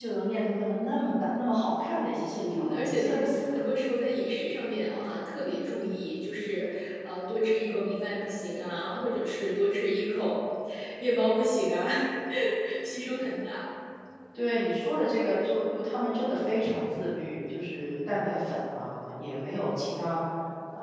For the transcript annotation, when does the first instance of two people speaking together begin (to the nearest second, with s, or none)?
2 s